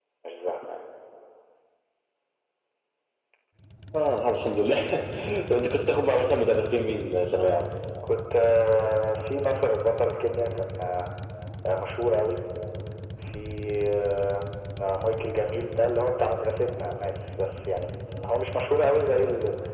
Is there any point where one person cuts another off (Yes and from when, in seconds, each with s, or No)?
No